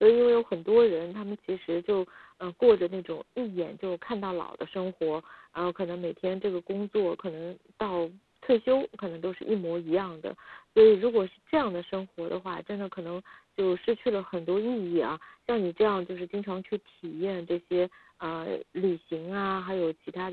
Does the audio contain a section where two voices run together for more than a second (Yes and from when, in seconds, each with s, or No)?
No